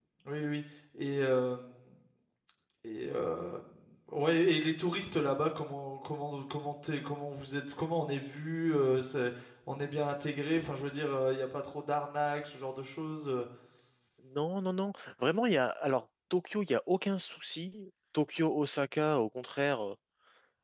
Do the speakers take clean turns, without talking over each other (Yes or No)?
Yes